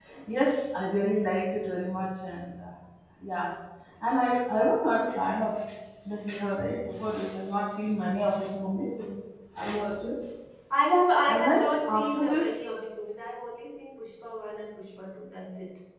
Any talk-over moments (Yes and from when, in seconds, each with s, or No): Yes, from 11.3 s